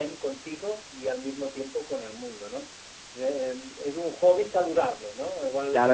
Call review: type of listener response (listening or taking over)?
taking over